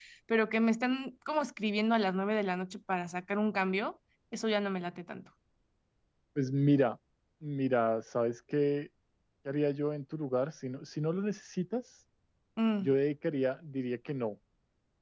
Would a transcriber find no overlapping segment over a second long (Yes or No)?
Yes